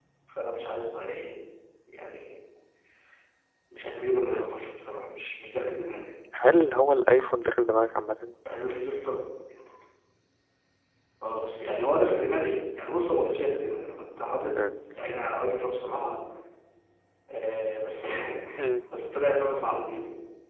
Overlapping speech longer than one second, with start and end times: none

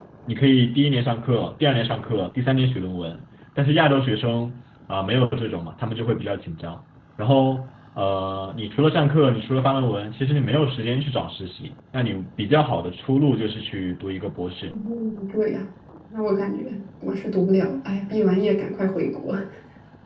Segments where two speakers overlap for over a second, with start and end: none

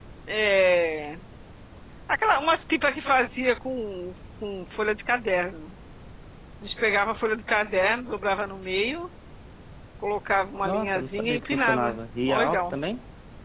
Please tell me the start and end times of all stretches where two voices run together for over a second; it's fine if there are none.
10.6-12.8

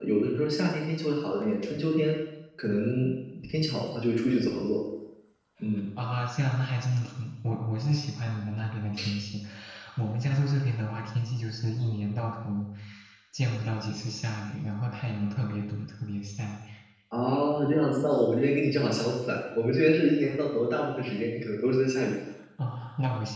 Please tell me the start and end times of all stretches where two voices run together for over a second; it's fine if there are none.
none

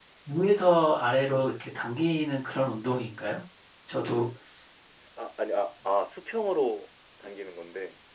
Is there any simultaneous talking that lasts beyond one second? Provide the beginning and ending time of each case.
none

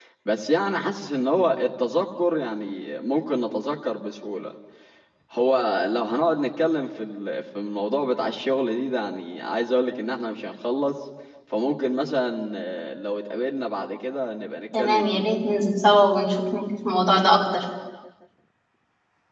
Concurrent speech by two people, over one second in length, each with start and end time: none

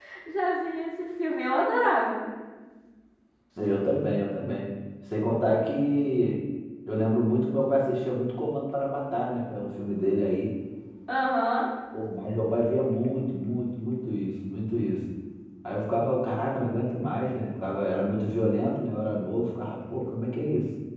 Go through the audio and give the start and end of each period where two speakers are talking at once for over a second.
none

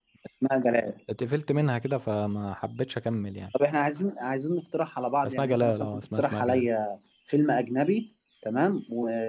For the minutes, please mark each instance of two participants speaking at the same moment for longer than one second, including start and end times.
5.3-6.7

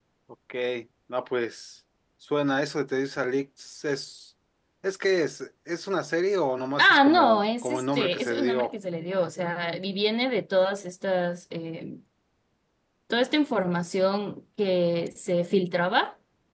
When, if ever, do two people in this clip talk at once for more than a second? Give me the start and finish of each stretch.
6.8-8.7

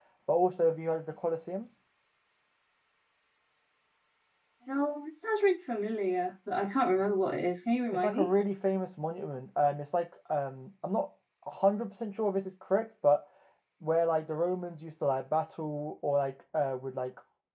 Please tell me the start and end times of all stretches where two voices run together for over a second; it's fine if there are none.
none

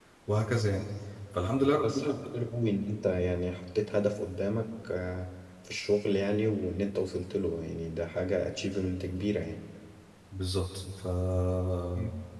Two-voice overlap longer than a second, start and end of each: none

